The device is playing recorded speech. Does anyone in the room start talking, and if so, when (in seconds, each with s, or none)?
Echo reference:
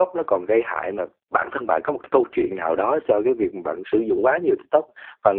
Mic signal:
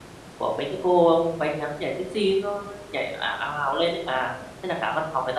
0.4 s